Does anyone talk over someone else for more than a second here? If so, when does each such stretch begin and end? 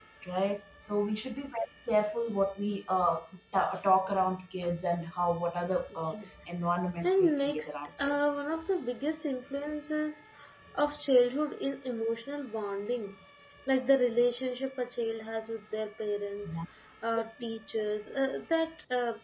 7.0-8.3

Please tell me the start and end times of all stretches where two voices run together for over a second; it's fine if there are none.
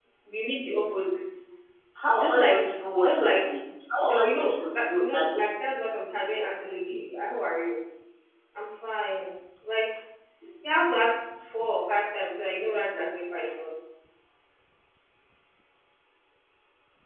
2.1-3.5, 4.0-5.4

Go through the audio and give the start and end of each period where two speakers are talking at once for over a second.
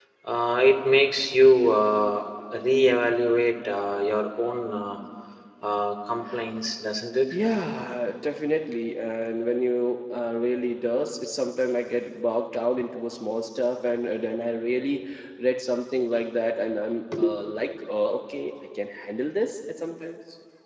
none

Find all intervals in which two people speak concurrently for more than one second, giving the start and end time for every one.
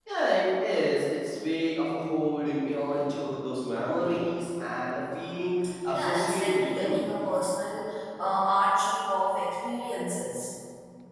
5.9-7.2

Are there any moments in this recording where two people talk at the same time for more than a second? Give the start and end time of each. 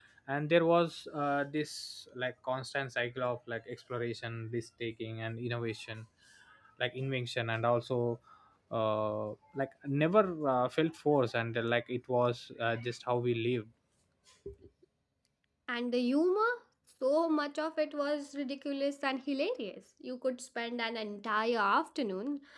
none

